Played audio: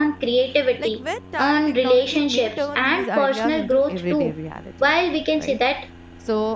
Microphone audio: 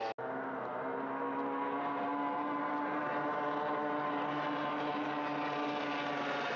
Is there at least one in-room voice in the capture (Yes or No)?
No